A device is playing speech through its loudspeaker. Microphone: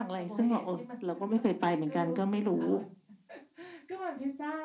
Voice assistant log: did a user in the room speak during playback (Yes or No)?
Yes